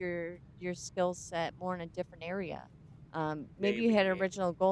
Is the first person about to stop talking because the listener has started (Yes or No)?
No